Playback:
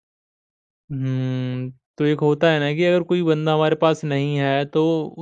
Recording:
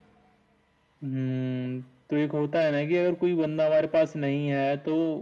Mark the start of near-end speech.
none

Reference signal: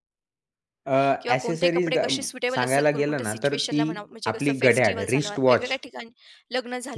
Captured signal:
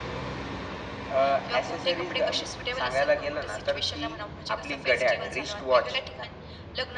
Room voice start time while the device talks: none

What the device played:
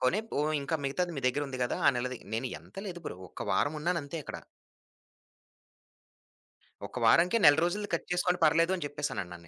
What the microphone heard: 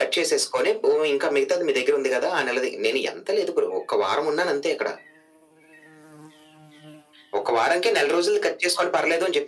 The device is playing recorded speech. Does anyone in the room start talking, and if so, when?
none

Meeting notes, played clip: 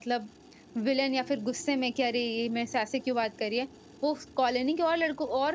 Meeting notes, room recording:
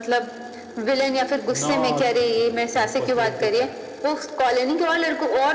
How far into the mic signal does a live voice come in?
1.5 s

